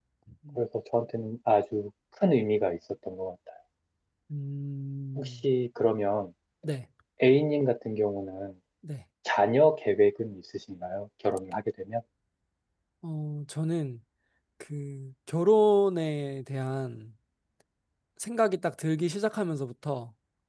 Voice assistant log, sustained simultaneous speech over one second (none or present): none